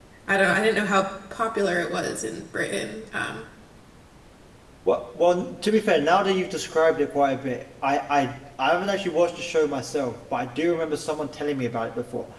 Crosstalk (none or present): none